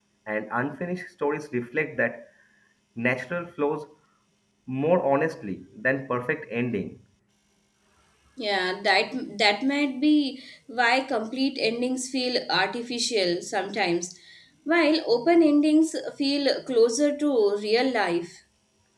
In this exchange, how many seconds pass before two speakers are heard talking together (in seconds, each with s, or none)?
none